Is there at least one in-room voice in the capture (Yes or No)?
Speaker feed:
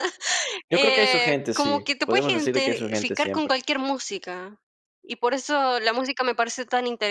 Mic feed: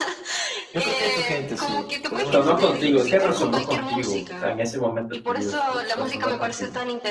Yes